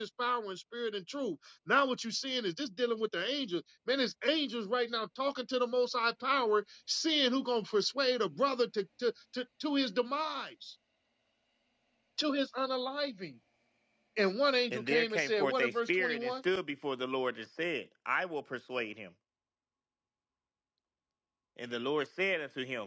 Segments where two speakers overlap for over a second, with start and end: 14.7-16.3

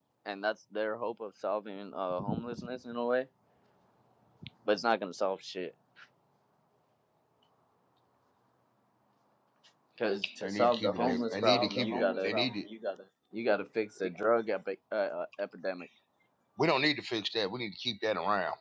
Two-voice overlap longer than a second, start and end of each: 10.4-12.3

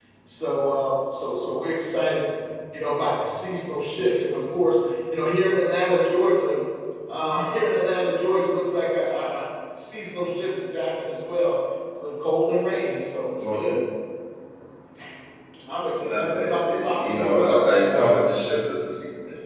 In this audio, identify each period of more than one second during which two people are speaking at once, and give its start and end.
16.0-18.1

